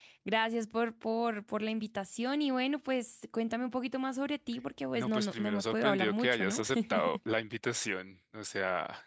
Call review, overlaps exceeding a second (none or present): present